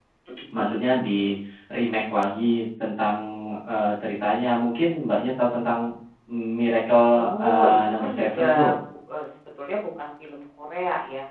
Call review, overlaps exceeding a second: present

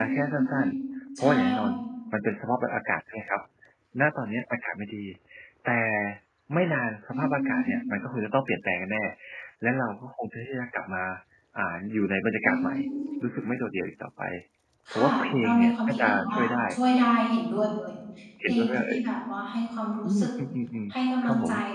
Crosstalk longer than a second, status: present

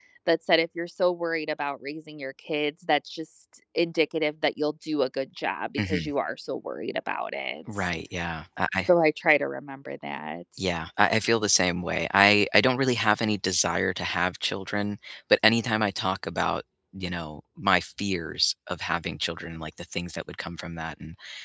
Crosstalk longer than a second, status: none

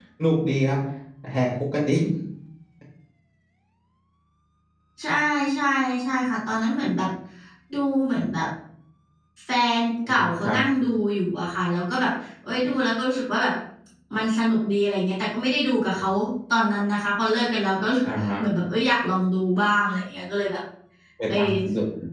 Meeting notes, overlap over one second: none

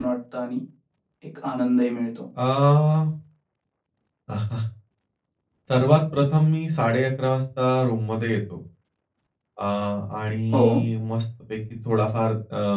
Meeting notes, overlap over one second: none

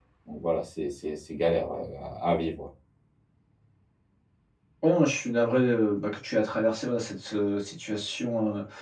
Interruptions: none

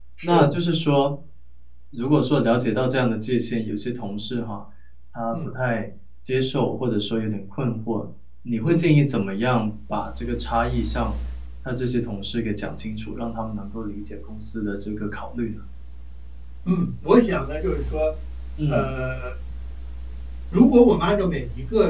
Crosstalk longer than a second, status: none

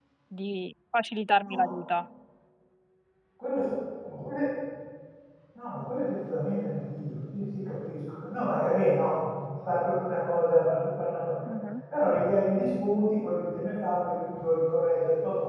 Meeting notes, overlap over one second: none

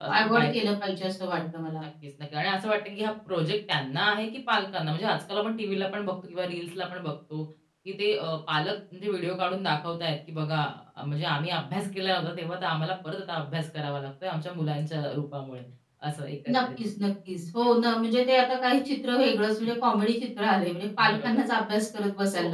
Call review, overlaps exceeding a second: none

